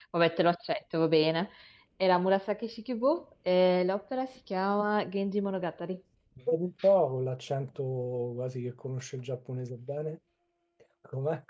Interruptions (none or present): none